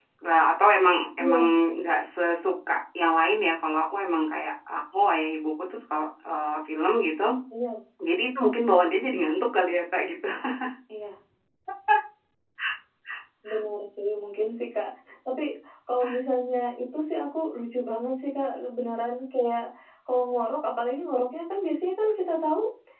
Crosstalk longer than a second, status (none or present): none